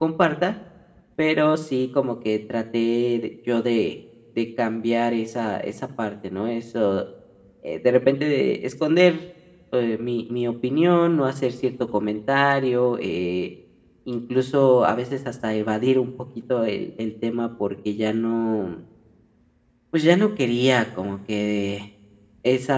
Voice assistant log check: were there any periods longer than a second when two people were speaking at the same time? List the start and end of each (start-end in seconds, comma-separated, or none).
none